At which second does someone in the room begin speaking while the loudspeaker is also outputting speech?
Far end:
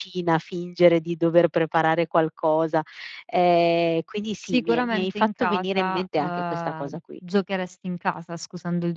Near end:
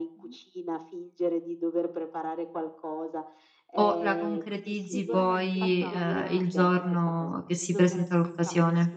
3.7 s

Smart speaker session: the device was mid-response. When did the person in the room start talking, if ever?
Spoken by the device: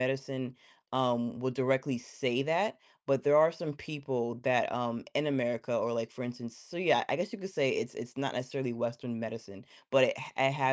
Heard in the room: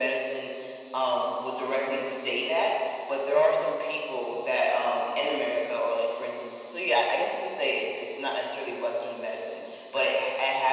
none

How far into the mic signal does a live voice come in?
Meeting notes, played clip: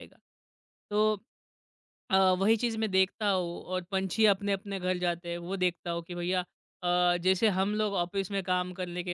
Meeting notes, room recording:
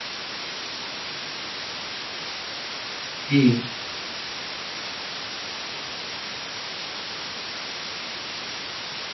3.3 s

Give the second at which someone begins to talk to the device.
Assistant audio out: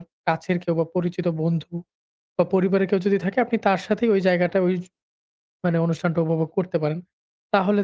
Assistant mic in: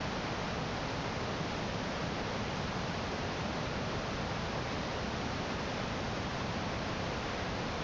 none

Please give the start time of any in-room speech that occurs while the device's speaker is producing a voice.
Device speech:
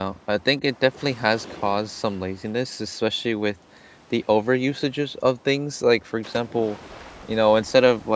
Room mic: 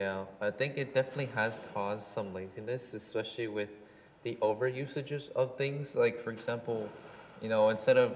none

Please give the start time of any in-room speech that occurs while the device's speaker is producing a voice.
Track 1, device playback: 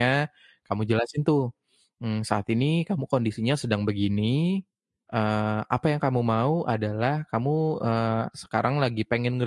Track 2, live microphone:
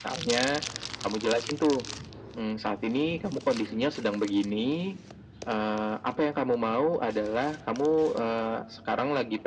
none

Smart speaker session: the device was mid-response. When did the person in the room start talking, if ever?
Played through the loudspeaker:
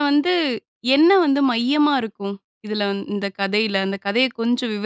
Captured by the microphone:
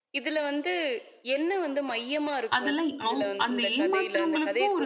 2.6 s

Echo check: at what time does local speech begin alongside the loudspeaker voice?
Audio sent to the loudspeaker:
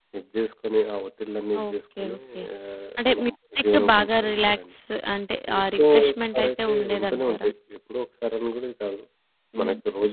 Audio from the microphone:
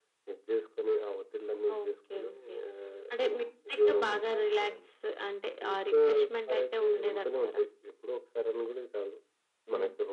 none

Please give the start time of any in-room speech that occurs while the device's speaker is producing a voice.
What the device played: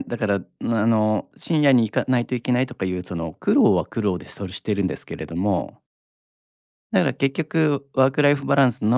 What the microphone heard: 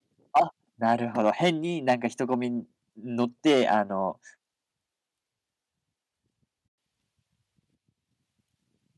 0.3 s

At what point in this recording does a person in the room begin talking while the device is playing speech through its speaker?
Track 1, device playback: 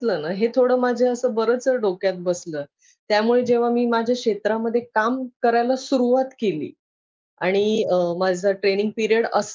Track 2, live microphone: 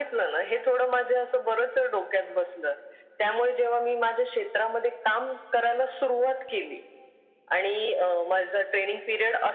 none

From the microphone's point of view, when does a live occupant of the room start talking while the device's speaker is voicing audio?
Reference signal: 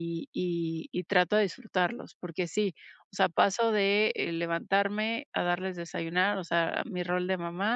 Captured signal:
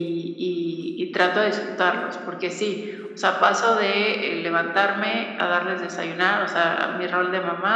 none

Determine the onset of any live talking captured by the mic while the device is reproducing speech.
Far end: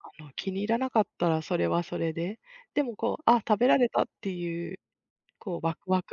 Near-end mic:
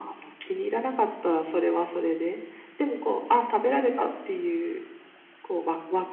none

